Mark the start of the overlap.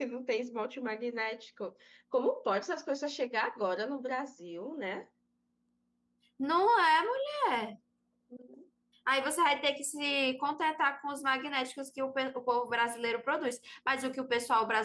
none

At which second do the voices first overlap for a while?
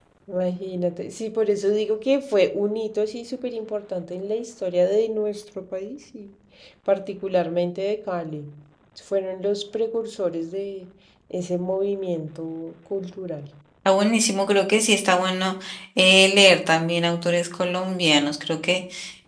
none

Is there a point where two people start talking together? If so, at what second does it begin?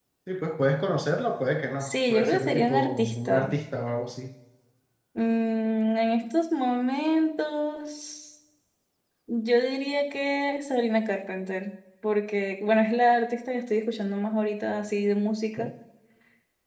1.8 s

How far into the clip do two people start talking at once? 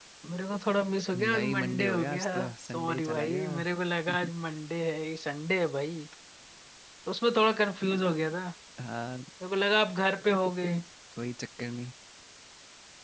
1.2 s

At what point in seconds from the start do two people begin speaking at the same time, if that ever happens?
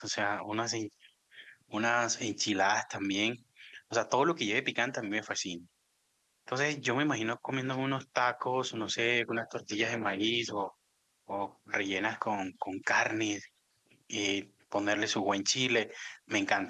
none

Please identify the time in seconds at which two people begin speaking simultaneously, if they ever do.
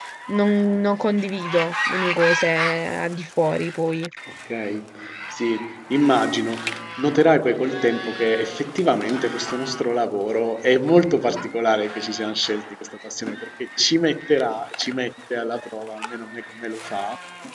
none

